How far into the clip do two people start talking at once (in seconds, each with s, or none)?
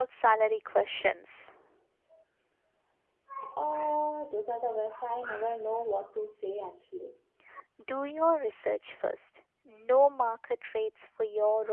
none